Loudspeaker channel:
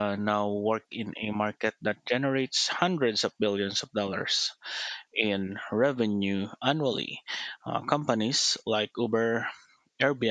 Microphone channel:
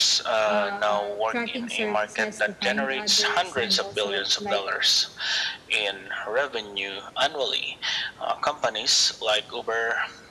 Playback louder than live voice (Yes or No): Yes